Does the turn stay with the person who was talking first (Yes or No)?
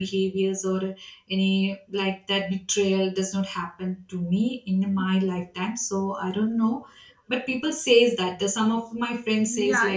No